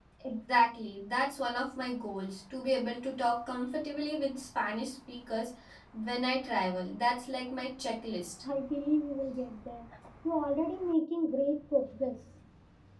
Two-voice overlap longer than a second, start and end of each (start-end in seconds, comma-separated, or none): none